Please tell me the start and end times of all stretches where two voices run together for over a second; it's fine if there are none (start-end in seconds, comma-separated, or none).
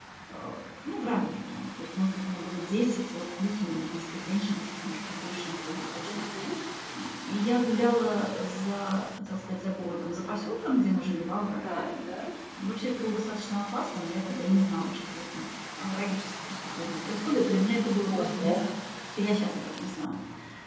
none